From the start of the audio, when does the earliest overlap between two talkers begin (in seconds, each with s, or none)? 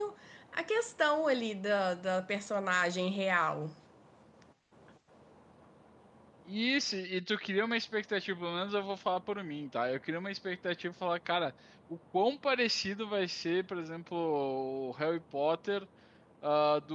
none